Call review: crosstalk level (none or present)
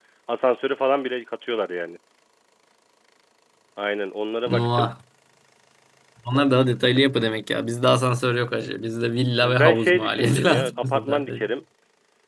present